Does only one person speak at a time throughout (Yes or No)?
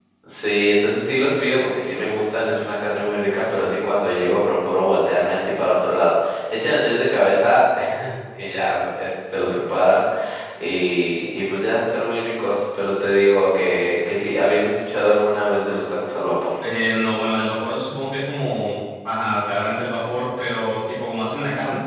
Yes